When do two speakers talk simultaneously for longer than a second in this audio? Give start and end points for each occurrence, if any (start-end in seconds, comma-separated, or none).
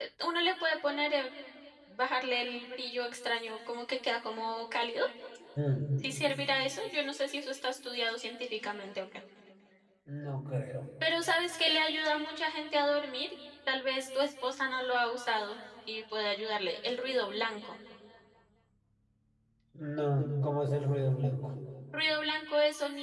none